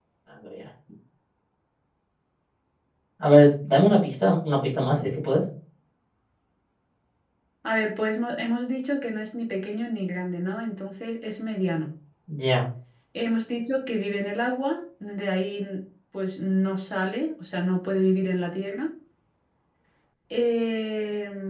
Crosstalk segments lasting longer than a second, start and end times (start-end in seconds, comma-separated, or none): none